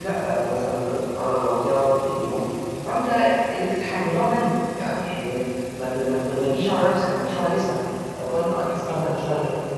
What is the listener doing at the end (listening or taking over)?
taking over